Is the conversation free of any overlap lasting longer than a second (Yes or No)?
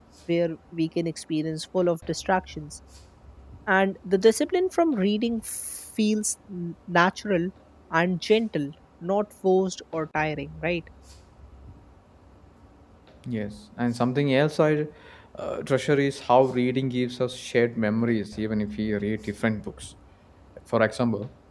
Yes